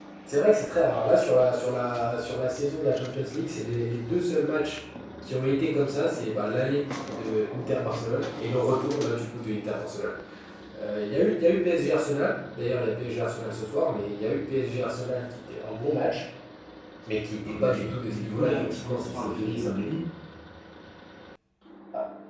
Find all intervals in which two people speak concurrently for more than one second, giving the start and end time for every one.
17.5-19.7

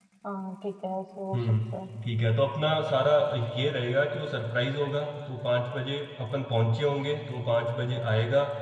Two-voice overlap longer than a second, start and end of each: none

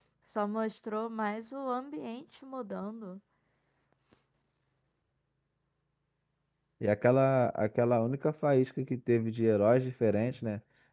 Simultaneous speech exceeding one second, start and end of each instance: none

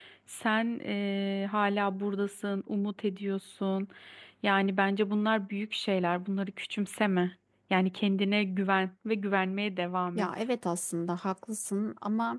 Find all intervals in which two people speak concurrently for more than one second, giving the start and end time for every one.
none

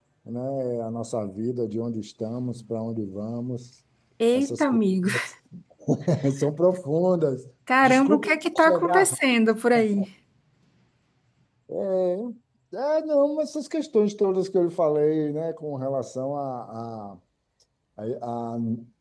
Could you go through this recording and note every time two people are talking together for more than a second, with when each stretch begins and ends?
7.8-9.2

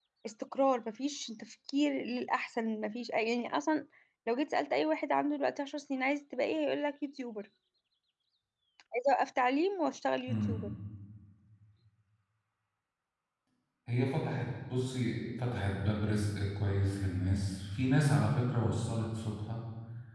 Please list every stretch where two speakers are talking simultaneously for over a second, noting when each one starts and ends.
none

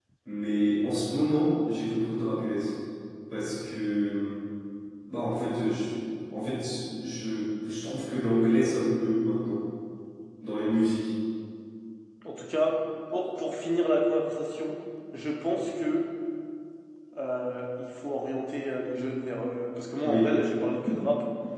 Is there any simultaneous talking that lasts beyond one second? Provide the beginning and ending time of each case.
none

